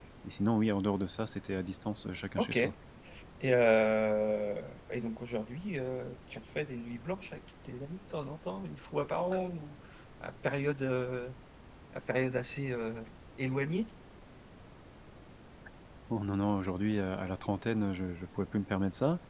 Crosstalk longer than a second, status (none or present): none